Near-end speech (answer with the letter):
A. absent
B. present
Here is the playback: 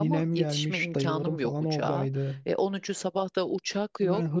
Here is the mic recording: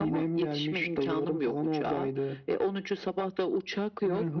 A